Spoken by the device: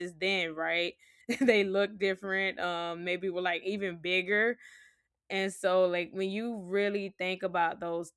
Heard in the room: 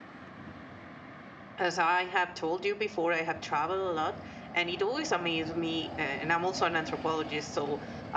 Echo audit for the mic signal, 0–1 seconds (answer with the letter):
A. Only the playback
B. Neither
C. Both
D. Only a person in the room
B